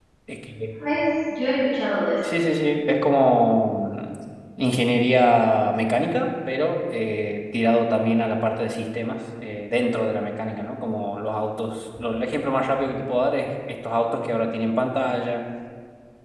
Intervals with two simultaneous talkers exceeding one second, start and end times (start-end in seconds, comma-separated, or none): none